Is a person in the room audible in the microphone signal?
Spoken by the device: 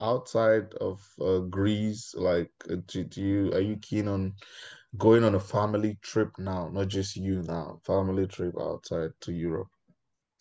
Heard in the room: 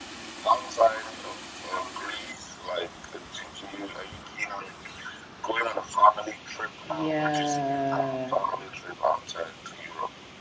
Yes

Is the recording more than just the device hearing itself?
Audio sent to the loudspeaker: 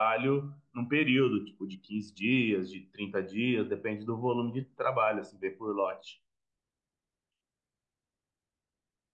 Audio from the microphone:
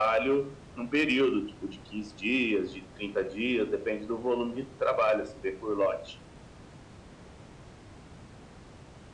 No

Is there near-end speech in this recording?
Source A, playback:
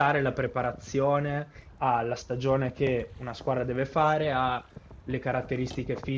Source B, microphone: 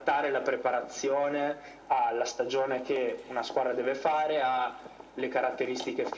No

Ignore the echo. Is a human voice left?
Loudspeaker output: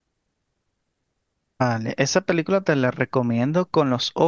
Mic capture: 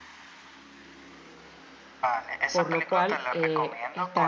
Yes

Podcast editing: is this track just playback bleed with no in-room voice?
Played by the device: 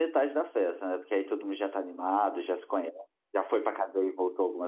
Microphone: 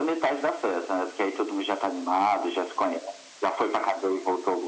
Yes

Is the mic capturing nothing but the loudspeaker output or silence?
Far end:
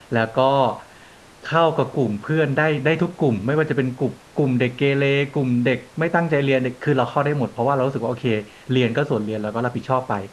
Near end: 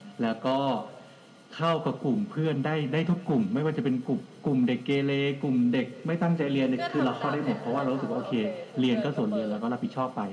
No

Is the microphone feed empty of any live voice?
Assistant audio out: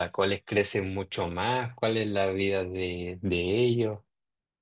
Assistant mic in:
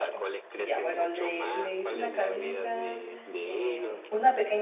No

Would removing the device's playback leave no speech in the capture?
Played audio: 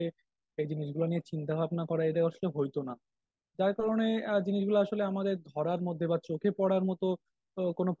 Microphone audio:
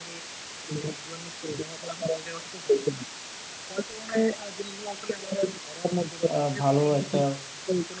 No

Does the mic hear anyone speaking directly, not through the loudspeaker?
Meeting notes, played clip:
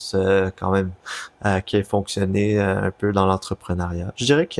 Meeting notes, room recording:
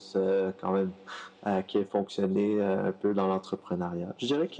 No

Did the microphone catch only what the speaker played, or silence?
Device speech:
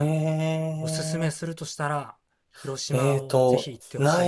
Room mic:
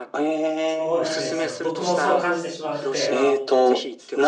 No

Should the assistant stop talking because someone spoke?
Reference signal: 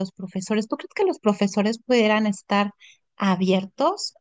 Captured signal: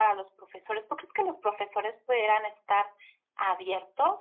No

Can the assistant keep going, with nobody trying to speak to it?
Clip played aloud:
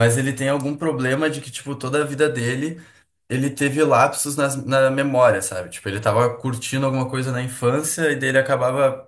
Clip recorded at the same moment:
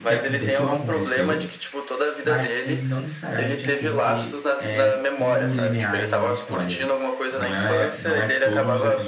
No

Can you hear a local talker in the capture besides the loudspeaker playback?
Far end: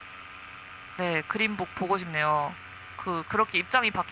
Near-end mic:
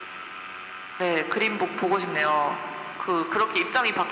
No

